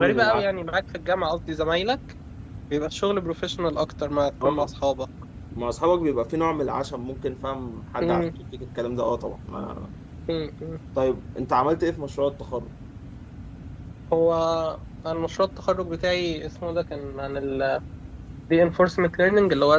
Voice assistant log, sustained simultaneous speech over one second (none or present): none